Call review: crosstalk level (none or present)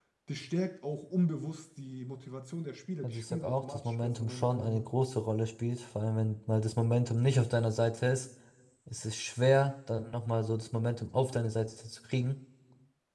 present